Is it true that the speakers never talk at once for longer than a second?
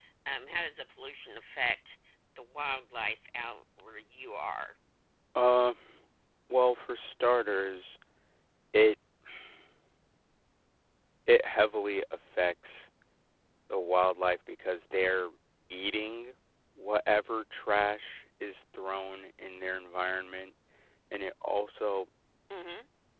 Yes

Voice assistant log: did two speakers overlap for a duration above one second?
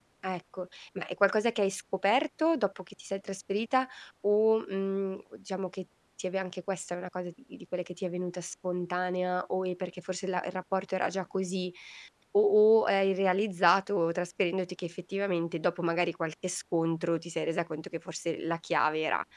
No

